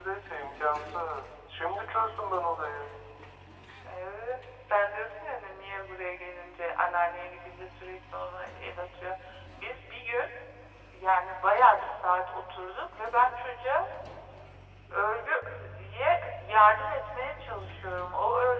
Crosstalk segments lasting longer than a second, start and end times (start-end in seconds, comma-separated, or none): none